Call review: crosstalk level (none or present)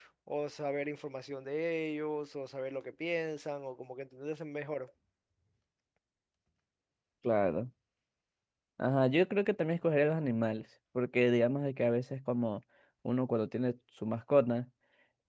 none